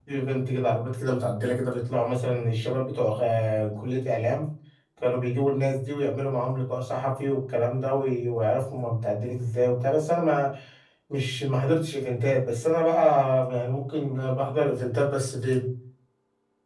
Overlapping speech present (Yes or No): No